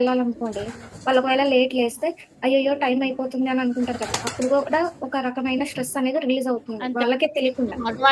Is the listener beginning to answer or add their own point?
Yes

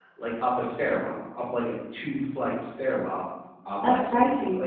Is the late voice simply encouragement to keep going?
Yes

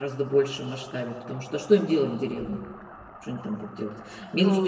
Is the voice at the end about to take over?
Yes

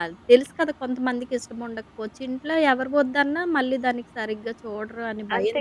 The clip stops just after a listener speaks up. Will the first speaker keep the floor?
No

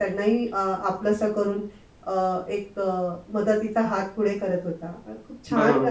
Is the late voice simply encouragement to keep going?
Yes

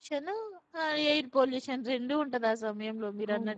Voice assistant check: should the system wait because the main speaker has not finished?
No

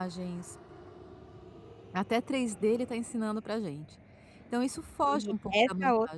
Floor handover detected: Yes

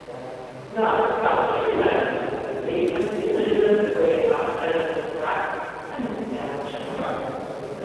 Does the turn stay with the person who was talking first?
Yes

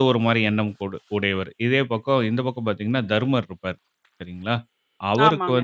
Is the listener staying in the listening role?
Yes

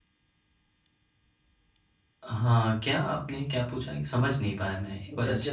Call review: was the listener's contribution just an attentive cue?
No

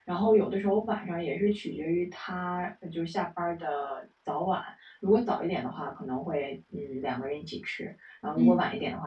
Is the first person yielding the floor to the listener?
No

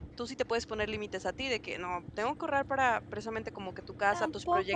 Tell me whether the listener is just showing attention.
No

